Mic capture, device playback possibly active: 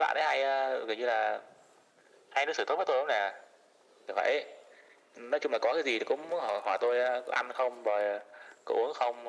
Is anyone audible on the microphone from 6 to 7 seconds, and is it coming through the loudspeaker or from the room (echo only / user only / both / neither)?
echo only